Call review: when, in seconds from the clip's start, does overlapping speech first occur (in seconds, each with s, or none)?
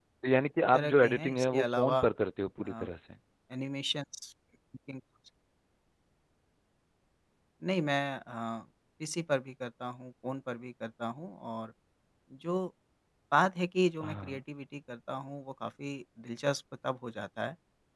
0.7 s